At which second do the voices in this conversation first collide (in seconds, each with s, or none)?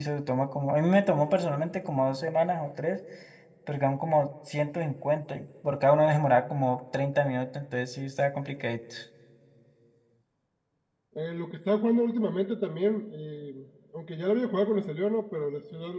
none